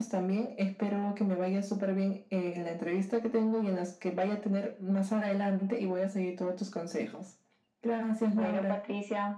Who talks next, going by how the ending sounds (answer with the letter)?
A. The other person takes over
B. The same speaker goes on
A